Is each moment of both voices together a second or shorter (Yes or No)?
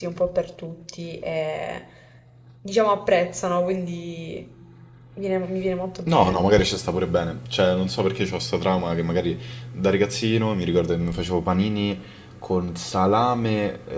Yes